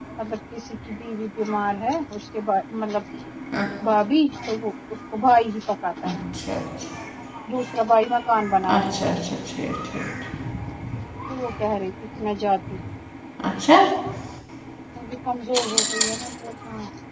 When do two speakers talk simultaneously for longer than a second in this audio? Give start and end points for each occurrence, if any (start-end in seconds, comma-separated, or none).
none